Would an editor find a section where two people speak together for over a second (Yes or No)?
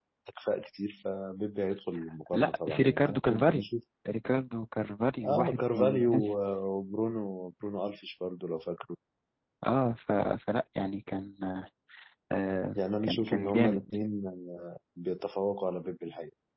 Yes